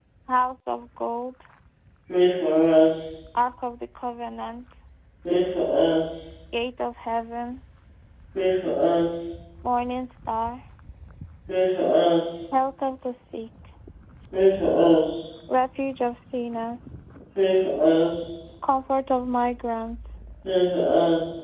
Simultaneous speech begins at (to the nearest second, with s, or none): none